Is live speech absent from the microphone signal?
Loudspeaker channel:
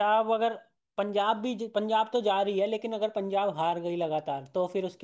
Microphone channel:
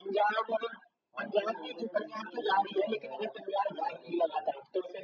No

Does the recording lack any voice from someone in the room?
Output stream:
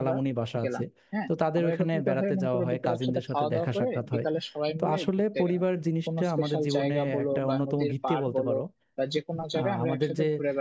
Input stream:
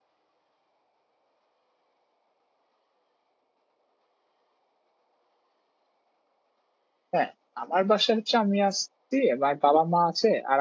No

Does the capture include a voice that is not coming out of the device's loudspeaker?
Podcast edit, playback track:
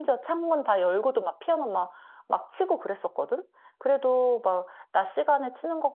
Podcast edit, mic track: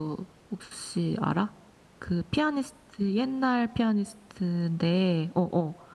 Yes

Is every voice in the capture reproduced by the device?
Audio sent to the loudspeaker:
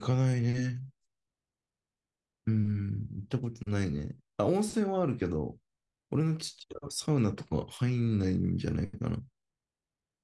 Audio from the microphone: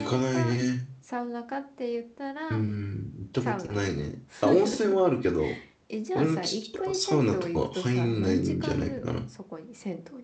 No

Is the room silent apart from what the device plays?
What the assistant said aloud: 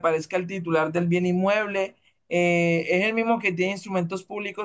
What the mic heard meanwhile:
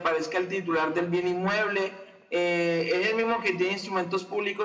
Yes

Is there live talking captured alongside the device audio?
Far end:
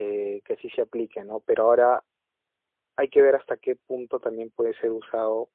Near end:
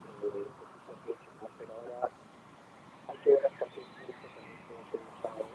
No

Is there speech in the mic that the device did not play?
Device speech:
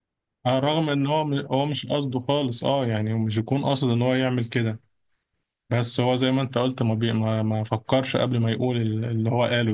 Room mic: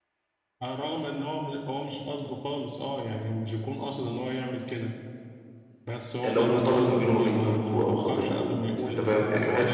Yes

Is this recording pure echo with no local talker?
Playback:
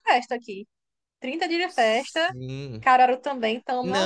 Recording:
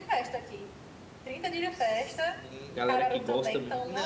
No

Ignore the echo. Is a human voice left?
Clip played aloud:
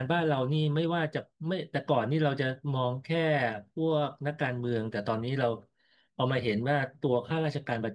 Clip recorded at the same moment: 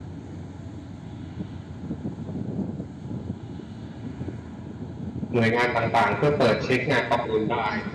Yes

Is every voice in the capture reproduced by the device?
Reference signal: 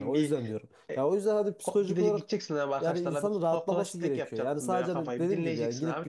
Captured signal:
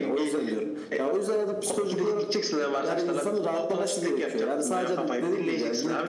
Yes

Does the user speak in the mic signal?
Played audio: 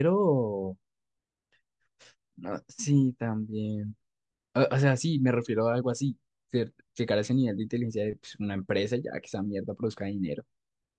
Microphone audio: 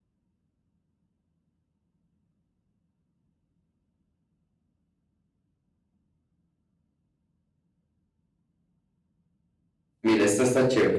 Yes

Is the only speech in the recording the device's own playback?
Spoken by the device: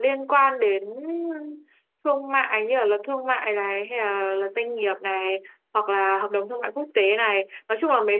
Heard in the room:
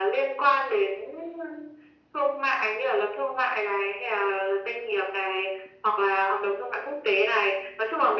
Yes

